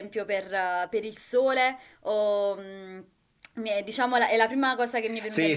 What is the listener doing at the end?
taking over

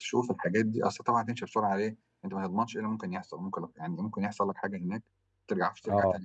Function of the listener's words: listening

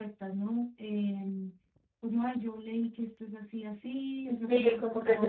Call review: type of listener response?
taking over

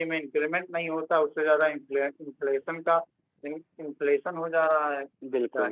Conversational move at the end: taking over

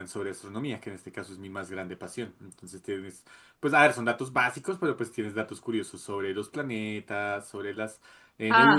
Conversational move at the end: listening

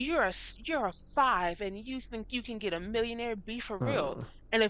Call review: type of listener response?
listening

